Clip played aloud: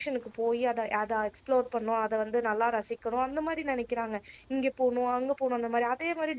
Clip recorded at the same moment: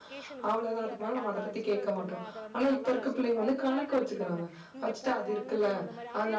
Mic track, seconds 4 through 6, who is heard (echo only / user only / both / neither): both